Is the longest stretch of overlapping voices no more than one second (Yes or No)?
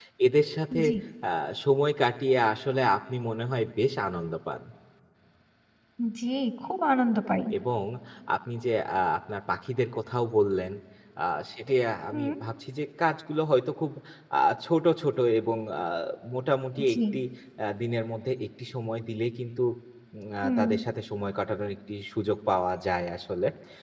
Yes